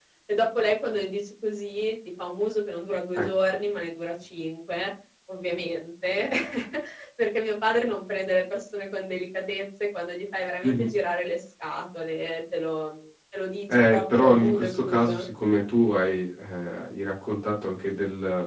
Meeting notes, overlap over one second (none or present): present